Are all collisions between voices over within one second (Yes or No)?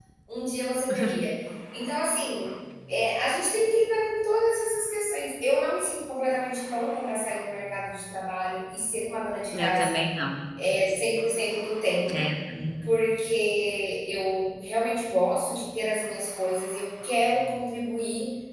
Yes